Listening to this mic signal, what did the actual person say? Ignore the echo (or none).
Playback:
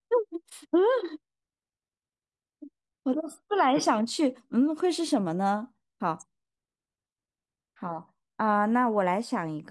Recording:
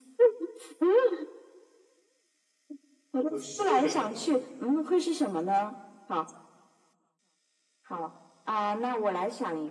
不是。